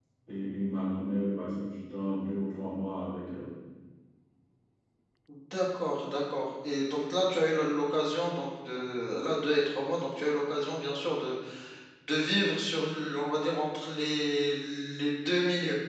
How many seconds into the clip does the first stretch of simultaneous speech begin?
none

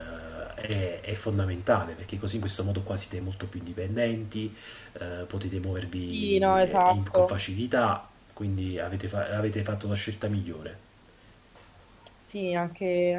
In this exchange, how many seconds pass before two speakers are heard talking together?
6 s

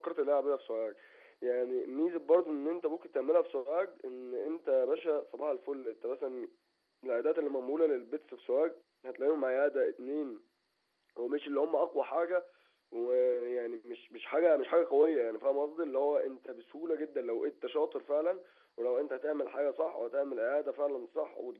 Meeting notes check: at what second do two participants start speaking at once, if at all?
none

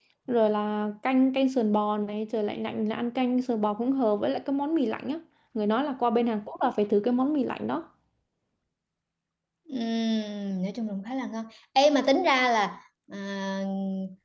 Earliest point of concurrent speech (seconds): none

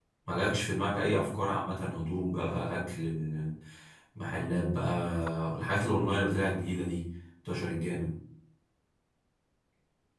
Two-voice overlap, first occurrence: none

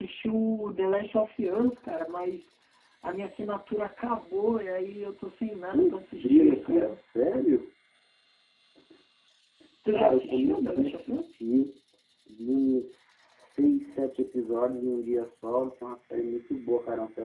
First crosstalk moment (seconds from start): 6 s

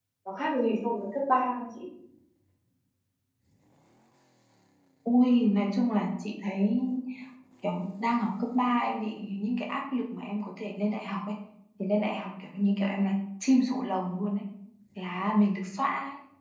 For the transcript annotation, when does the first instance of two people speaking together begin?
none

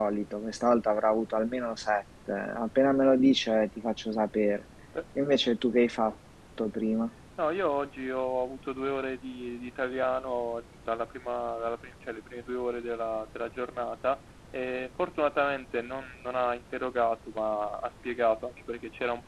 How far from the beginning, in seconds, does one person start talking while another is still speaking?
none

